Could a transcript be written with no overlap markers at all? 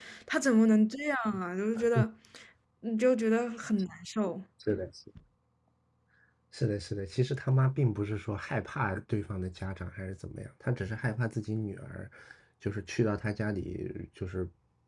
Yes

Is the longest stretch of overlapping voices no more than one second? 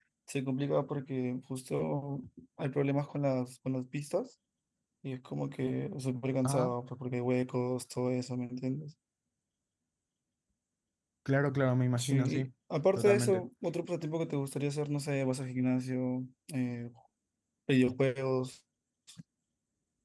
Yes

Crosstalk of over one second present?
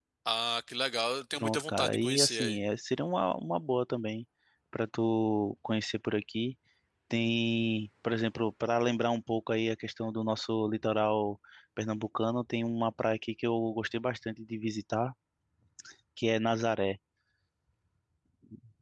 Yes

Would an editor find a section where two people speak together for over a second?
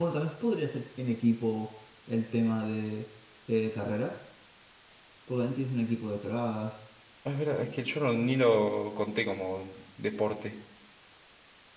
No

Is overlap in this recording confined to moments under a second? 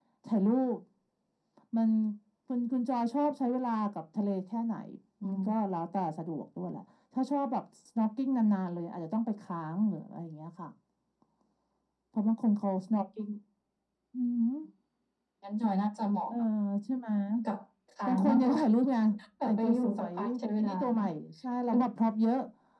No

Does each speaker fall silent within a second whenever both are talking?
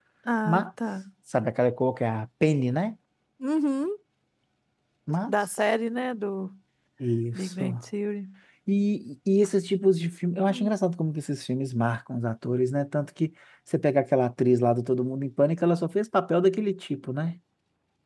Yes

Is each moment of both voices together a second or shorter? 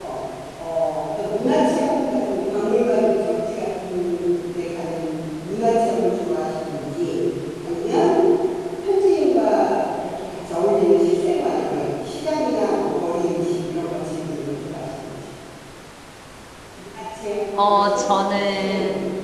No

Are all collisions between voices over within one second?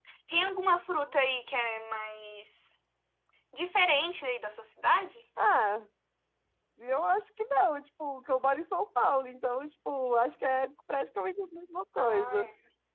Yes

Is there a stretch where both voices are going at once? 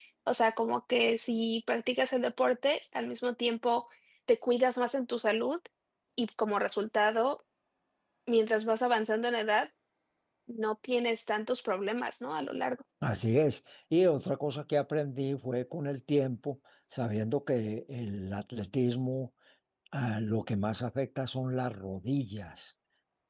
No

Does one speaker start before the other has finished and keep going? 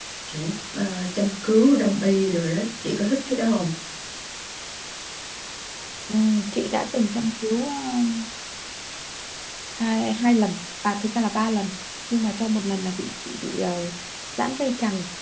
No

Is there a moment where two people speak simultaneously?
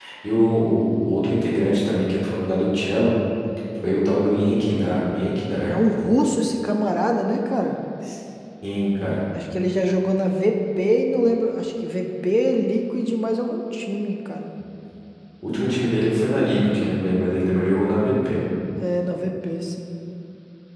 No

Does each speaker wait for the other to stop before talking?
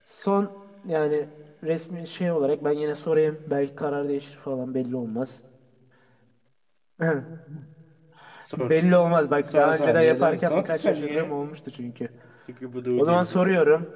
No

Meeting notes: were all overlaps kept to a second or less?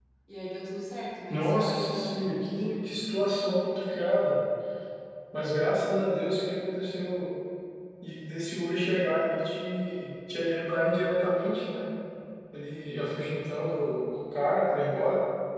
No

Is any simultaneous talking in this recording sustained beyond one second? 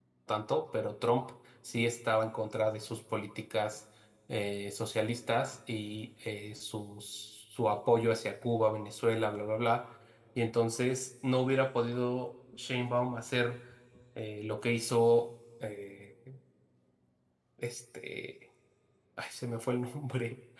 No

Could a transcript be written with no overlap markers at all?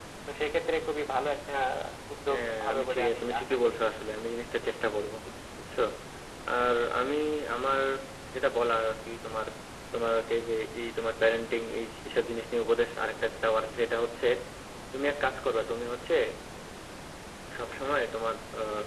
No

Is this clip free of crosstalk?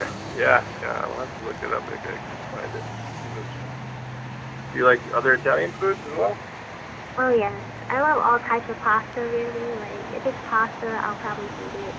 Yes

